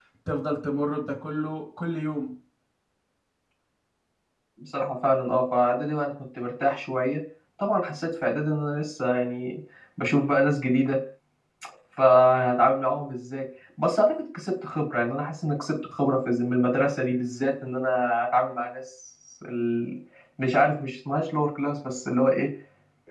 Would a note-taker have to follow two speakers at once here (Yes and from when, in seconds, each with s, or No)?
No